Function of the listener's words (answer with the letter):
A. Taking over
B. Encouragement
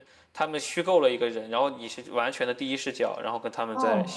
A